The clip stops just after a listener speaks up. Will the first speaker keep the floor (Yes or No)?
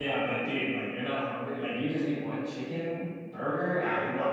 No